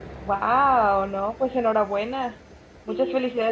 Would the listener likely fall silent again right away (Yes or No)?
Yes